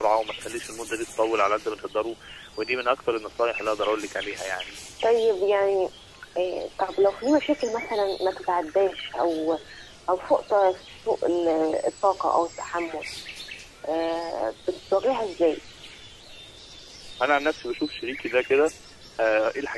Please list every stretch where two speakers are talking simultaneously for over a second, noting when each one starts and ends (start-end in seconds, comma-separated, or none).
none